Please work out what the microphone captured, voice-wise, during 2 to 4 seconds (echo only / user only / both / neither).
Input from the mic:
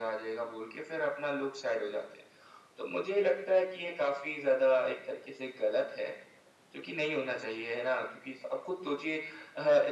echo only